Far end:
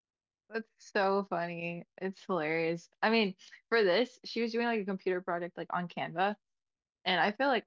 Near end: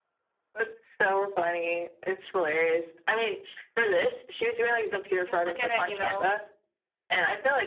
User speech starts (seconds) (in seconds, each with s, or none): 4.8 s